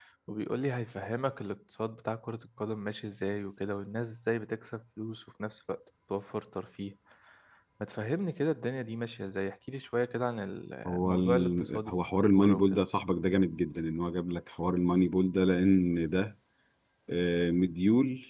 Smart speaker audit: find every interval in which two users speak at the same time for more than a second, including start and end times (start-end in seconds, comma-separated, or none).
10.9-12.8